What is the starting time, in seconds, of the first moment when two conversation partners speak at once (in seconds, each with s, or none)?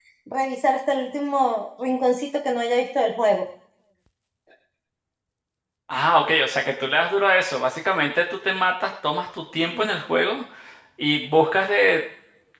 none